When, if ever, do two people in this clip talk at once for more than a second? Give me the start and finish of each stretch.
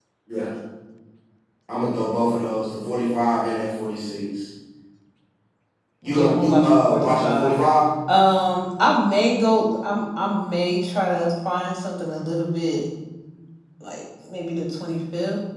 6.0-7.6

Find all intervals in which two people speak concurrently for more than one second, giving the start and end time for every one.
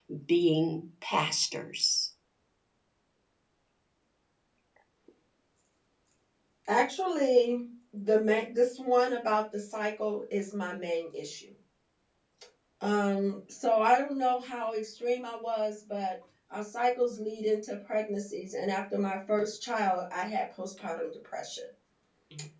none

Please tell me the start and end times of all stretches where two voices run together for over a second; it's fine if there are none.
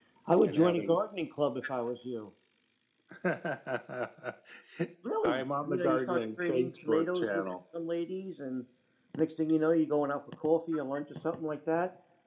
5.2-7.4

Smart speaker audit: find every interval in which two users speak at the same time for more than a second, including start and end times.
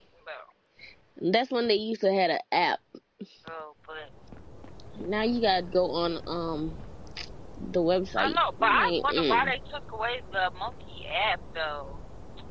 8.2-9.5

